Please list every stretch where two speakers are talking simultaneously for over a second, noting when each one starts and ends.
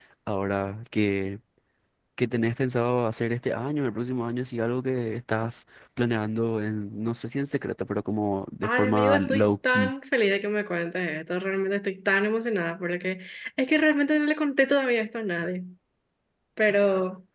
8.6-9.9

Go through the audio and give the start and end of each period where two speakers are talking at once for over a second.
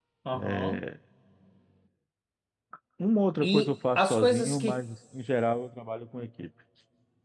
3.4-4.8

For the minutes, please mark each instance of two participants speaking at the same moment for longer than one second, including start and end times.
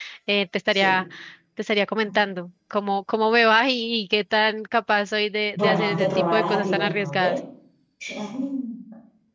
5.5-7.2

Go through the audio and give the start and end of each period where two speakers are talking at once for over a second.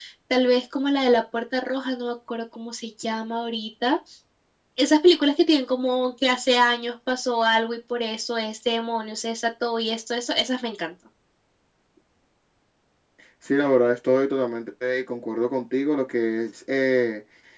none

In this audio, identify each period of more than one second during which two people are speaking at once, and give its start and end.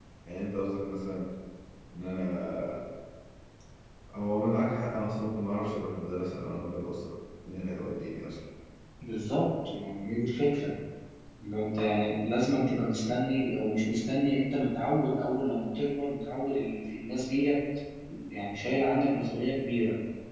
none

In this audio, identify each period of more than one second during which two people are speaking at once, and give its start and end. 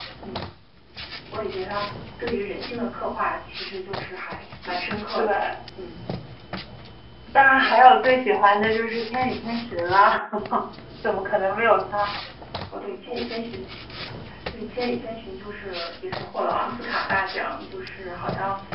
none

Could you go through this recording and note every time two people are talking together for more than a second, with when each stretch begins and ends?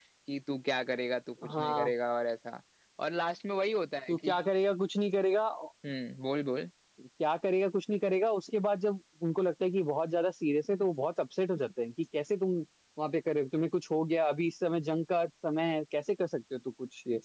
none

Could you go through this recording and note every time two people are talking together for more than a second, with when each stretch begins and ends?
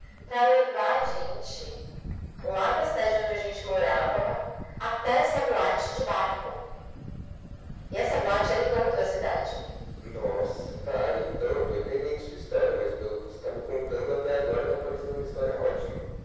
none

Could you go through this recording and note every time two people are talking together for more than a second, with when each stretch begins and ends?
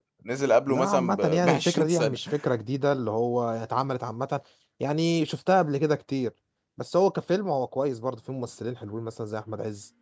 0.7-2.2

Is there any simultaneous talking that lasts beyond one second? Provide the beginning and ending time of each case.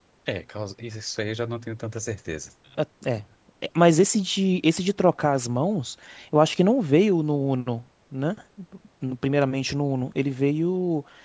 none

